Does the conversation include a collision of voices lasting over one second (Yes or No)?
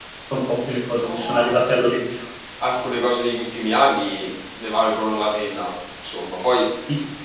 No